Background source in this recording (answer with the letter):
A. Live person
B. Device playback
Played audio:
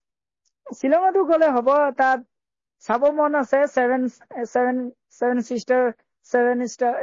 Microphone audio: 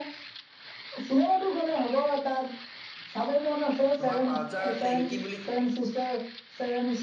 A